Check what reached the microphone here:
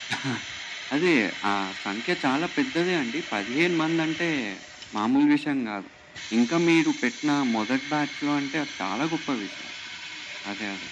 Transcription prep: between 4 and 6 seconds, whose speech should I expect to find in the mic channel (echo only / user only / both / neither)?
echo only